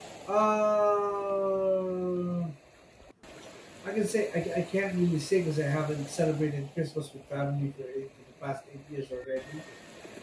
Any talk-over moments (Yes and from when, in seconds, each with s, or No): No